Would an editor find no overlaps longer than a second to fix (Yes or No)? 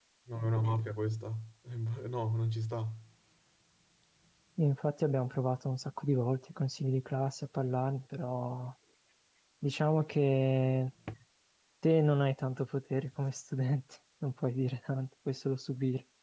Yes